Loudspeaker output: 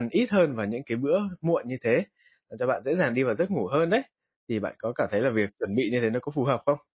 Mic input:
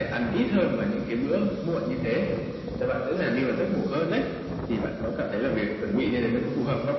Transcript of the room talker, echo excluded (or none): none